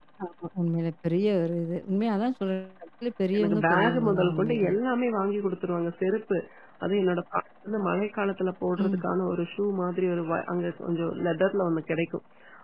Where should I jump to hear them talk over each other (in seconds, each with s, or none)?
3.3 s